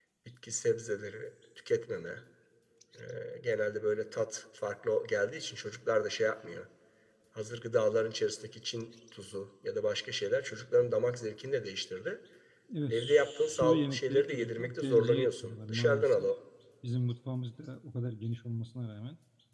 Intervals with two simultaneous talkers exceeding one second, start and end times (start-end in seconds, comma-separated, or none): 12.9-16.3